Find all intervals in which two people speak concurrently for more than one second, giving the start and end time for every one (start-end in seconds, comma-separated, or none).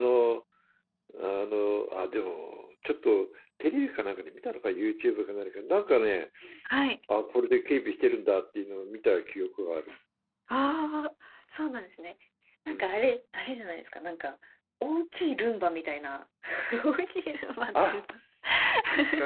none